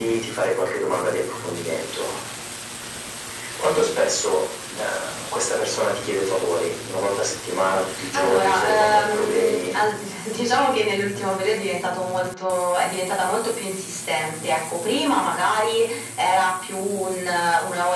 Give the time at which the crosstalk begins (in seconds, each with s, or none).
8.1 s